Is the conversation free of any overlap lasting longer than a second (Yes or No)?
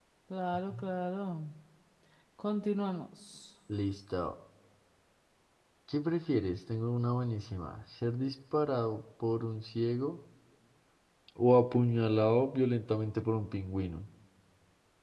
Yes